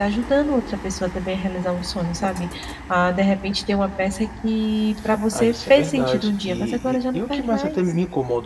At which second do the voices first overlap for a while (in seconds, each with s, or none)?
5.3 s